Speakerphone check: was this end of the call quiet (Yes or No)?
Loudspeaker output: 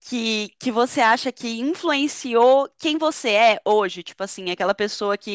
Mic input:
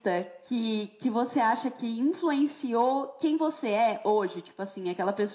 Yes